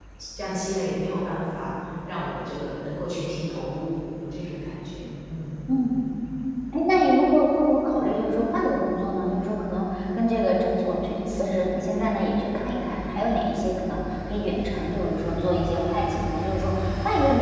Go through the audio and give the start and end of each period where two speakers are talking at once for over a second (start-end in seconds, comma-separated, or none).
none